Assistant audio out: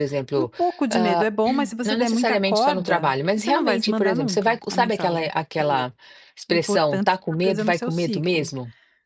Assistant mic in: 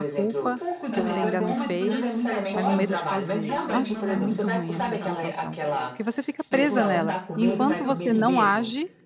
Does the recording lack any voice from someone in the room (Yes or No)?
No